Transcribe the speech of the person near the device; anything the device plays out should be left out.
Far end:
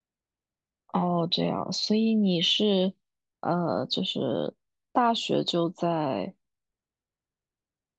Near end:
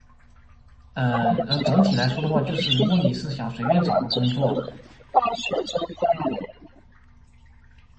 呃，呃，总体来说的话，就是如果你是想随便找个工作，

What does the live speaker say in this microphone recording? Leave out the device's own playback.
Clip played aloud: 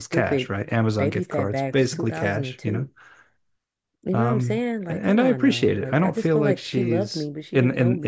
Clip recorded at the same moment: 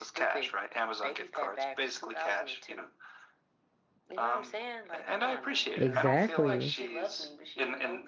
exactly,

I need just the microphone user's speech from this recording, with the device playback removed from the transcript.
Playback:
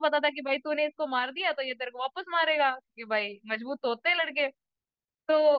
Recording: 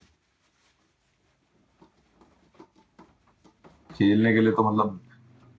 खेलने के लिए तो मतलब

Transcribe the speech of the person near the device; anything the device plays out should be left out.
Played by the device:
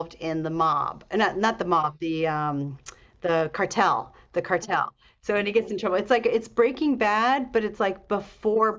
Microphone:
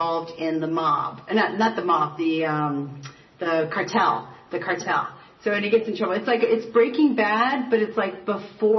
none

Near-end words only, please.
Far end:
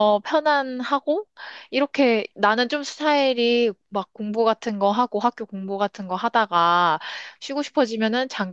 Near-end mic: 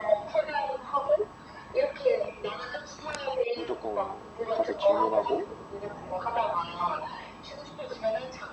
무조건 가서 질문하고

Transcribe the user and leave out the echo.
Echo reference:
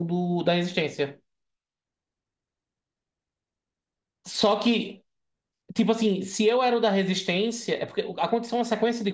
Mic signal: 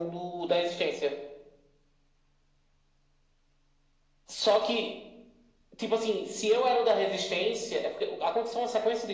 none

